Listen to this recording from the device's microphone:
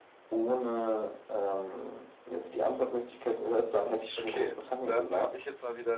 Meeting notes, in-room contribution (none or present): present